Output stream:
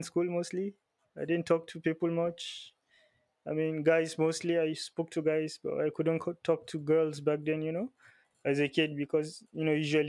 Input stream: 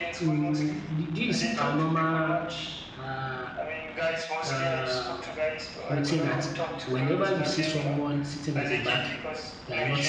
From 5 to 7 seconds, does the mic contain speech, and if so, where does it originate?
both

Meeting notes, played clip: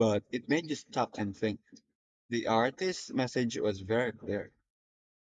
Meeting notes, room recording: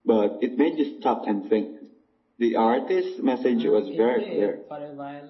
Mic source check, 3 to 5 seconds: both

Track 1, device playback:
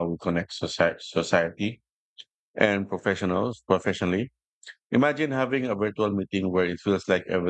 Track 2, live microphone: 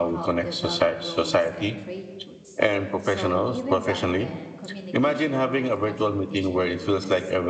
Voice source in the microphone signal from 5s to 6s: both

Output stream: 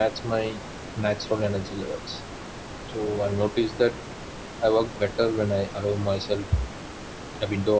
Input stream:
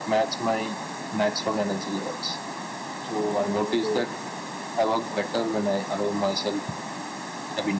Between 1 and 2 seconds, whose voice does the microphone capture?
echo only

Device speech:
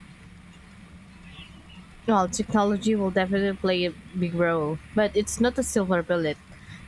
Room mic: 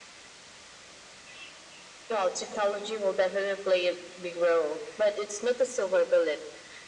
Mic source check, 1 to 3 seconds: echo only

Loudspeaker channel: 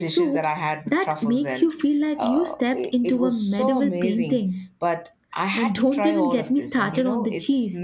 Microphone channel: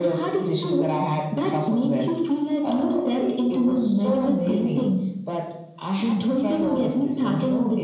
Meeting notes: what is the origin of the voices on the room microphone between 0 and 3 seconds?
echo only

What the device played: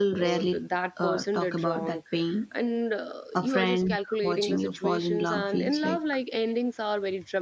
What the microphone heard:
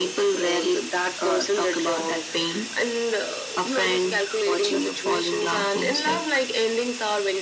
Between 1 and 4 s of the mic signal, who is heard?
echo only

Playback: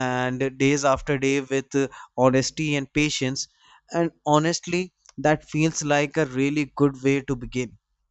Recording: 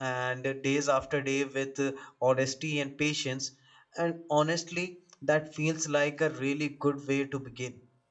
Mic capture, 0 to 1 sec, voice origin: echo only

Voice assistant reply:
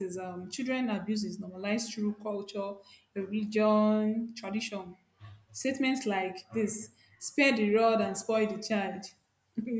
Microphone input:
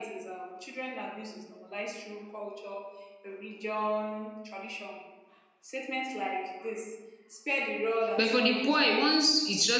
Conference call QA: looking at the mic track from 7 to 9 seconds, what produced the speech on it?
both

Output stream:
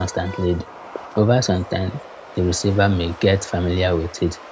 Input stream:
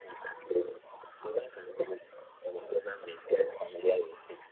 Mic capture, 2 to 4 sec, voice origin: echo only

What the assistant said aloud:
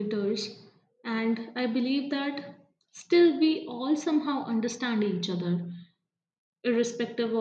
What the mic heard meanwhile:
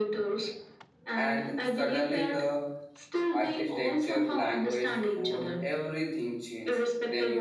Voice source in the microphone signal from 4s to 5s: both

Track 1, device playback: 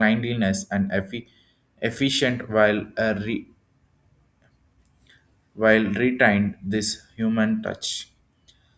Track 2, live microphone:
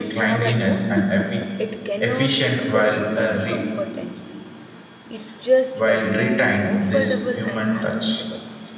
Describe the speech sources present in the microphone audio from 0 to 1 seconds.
both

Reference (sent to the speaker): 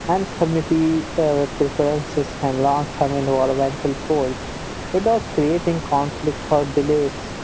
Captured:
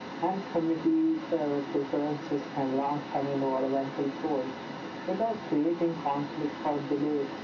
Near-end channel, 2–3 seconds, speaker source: echo only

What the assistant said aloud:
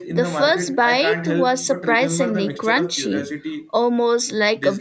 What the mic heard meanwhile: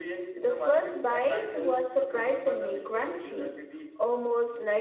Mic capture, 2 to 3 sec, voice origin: echo only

